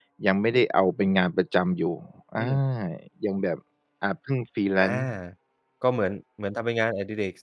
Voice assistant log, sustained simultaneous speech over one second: none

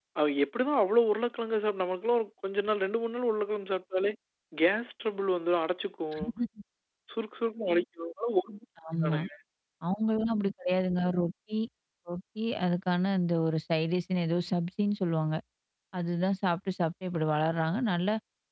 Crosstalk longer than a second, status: none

